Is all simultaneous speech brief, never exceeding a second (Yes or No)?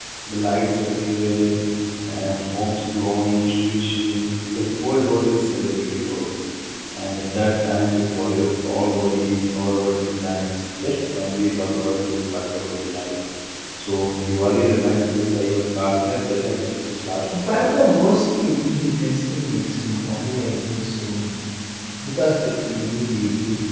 Yes